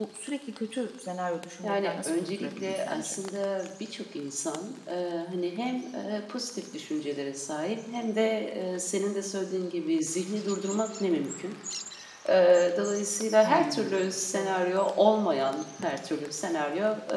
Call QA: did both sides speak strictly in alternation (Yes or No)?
No